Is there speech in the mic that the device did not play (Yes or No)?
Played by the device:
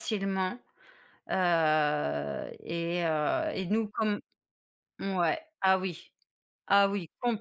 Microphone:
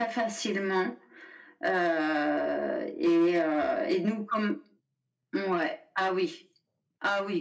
No